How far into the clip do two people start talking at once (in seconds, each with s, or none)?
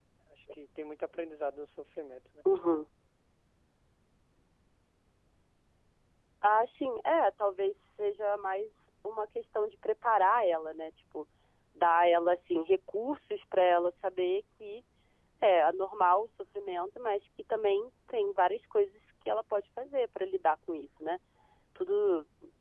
none